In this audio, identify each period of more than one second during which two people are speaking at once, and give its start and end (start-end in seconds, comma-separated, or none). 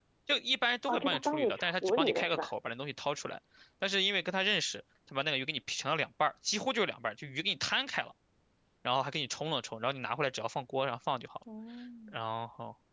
0.8-2.5